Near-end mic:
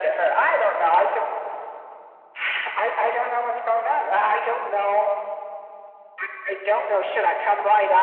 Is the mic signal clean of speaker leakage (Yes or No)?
No